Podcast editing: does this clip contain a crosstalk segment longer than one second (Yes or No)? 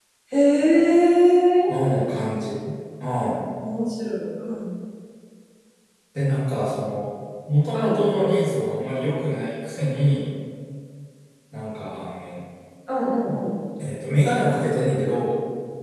No